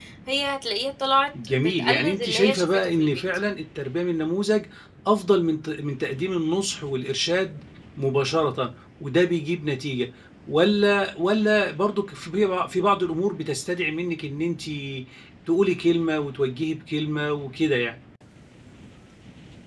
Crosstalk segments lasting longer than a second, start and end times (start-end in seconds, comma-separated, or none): 1.4-3.2